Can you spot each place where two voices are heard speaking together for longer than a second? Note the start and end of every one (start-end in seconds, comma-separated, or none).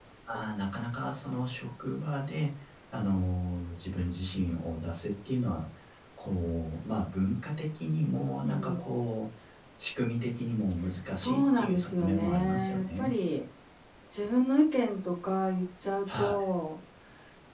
11.2-13.1